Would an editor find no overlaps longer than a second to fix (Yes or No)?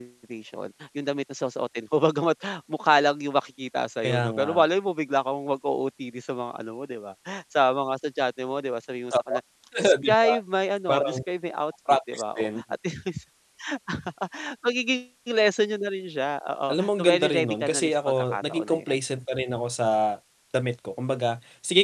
No